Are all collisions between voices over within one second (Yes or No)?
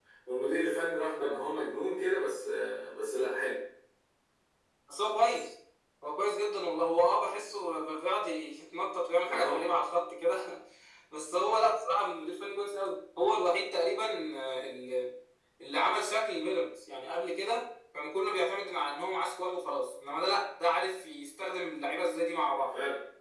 Yes